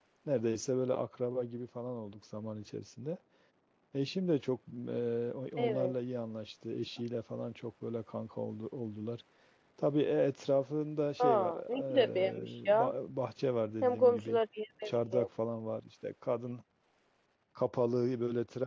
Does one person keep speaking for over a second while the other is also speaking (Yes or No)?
Yes